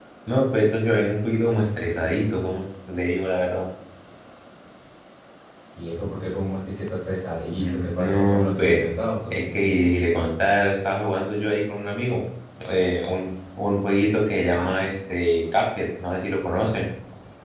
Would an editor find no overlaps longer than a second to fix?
No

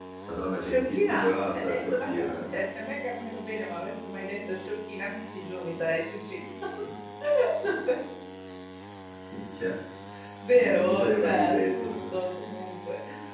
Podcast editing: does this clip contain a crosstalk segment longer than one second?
Yes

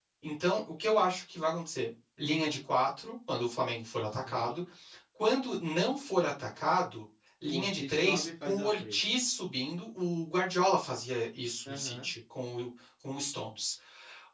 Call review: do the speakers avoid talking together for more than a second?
No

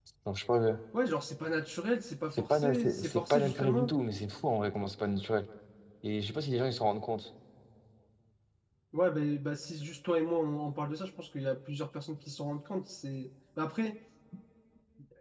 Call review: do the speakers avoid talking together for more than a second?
No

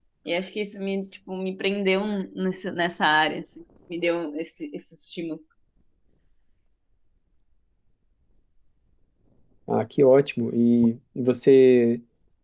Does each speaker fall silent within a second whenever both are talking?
Yes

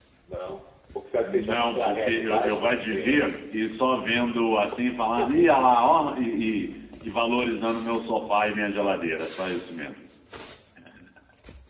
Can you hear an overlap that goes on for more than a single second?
Yes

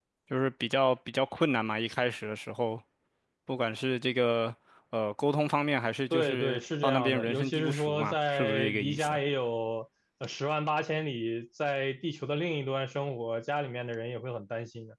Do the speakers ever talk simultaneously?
Yes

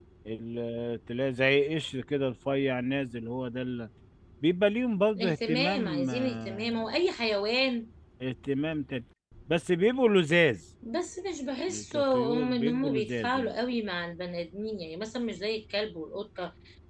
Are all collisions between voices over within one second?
No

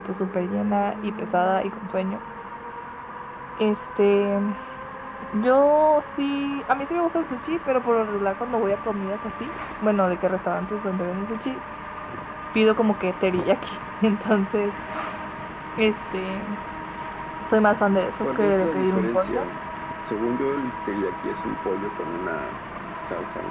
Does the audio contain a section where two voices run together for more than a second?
Yes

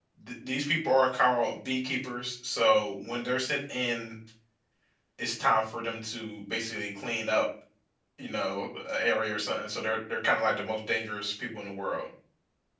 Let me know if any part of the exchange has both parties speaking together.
No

